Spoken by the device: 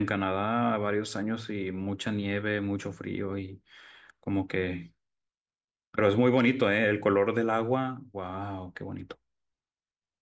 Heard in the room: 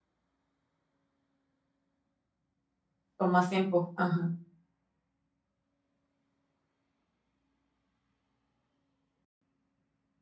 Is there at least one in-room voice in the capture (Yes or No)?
Yes